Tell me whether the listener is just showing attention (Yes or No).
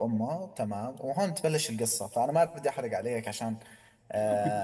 Yes